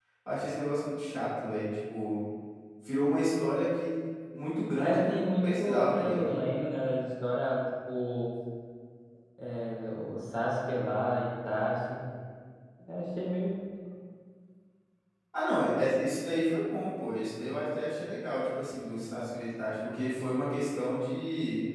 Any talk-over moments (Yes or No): Yes